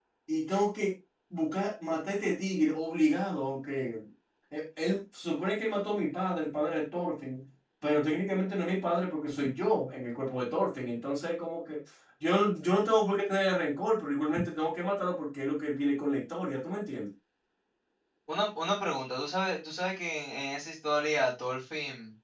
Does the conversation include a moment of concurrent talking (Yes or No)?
No